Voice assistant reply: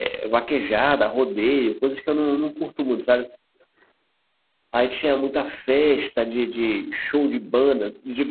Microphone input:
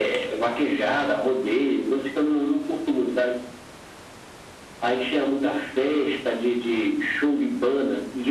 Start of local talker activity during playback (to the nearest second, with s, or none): none